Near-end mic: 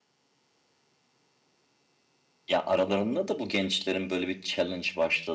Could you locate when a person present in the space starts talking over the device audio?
2.5 s

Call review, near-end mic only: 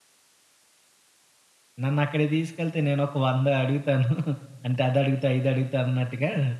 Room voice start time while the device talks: 1.8 s

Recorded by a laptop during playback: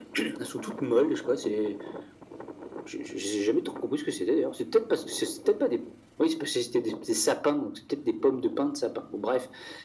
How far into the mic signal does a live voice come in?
none

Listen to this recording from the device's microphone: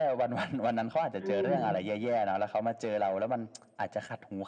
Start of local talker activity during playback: 1.1 s

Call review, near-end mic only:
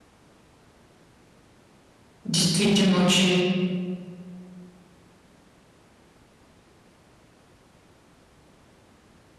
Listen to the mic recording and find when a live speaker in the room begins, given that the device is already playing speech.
2.2 s

